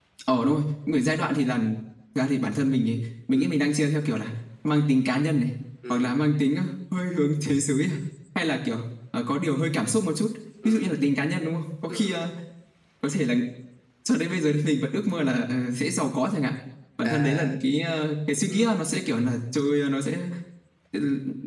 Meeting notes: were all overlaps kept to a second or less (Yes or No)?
Yes